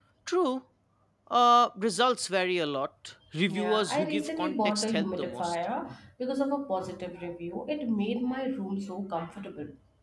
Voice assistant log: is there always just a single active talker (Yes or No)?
No